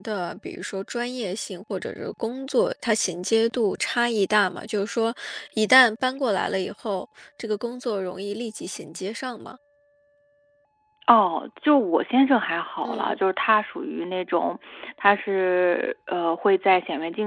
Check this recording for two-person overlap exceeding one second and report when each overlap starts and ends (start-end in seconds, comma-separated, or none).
none